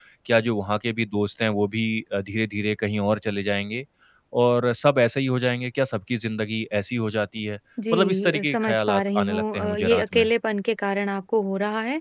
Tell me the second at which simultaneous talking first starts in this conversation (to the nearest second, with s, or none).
8 s